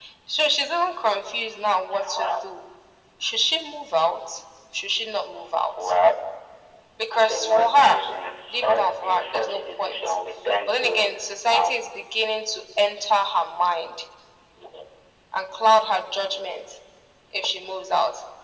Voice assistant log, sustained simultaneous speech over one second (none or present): present